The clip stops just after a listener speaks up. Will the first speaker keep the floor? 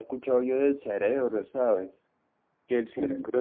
Yes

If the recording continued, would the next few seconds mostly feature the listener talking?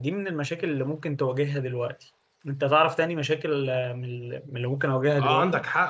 Yes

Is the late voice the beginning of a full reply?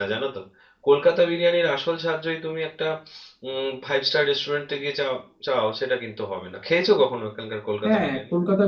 Yes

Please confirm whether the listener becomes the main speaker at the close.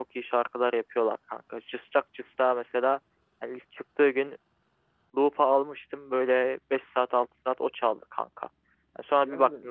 No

